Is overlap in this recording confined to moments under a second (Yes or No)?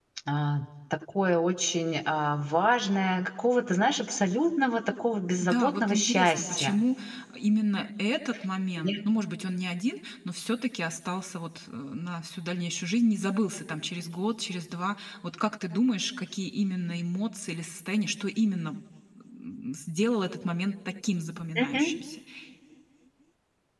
No